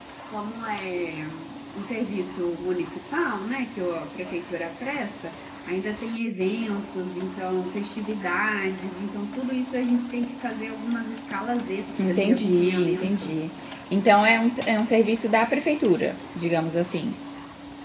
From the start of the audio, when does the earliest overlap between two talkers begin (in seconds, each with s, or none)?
12.0 s